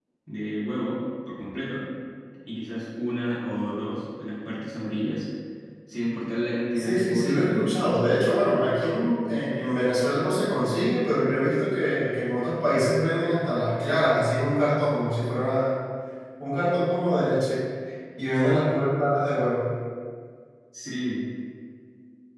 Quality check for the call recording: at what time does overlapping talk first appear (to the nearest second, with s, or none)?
7 s